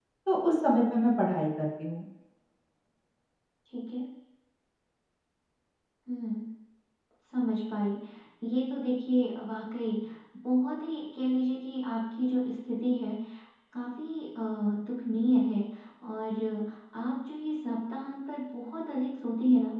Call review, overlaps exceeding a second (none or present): none